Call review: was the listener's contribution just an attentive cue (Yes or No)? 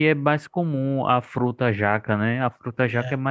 Yes